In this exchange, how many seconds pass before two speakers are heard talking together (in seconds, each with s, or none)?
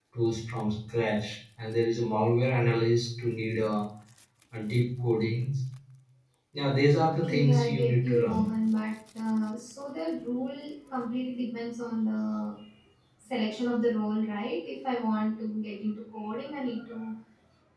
7.2 s